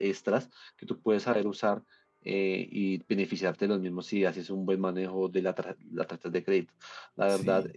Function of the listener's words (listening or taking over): listening